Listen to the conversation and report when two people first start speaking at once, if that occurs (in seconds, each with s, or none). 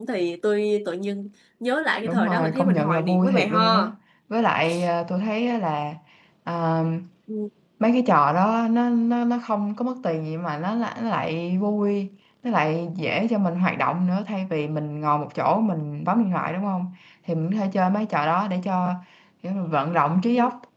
2.0 s